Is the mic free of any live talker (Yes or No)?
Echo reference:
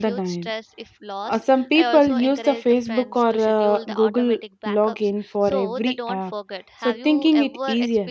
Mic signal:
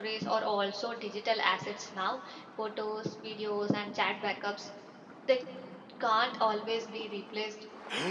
No